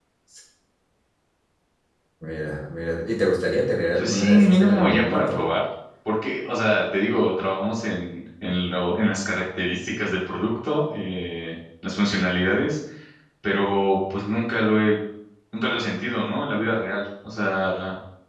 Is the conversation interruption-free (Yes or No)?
No